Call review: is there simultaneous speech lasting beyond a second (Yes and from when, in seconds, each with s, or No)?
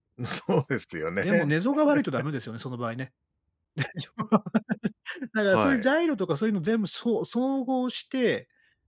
No